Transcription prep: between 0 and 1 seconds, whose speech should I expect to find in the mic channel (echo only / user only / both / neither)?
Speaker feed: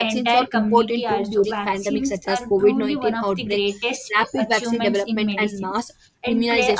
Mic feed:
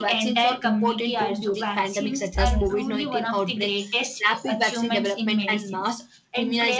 echo only